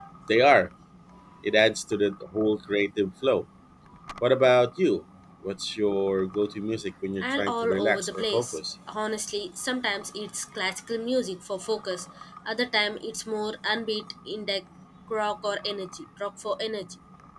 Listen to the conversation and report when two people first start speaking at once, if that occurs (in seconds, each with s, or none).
7.2 s